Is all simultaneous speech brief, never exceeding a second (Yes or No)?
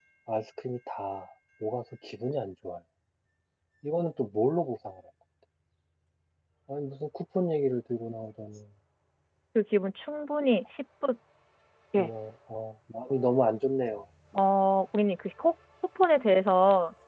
Yes